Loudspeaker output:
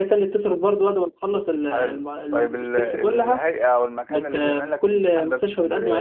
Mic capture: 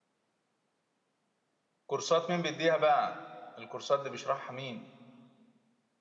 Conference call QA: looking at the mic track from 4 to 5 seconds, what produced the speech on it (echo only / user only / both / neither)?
user only